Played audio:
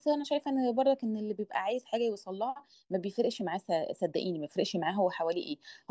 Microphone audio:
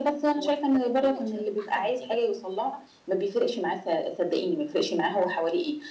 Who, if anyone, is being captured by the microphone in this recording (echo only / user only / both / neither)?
both